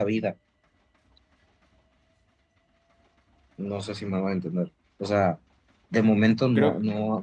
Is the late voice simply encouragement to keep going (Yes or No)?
Yes